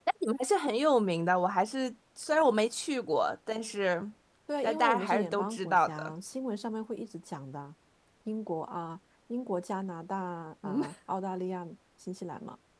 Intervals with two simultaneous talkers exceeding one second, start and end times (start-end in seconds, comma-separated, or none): 4.6-6.1